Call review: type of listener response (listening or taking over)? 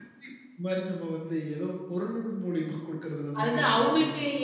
taking over